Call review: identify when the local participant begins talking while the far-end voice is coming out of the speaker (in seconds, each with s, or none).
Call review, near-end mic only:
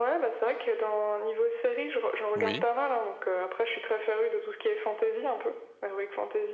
2.4 s